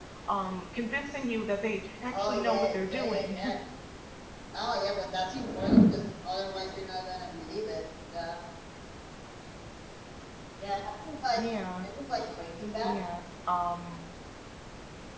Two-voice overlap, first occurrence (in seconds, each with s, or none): 2.1 s